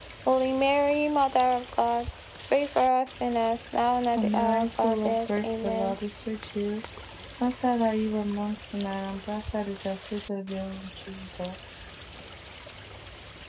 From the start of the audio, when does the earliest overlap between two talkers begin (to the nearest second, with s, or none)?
4 s